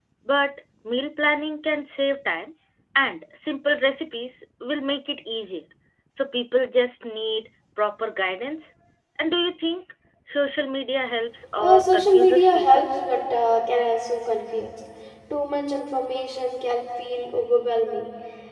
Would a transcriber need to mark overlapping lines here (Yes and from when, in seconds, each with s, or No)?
Yes, from 11.6 s